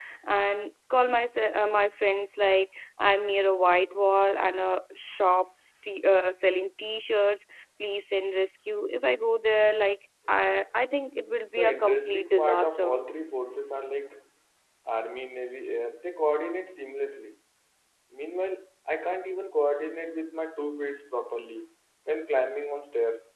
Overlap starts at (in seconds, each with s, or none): 11.5 s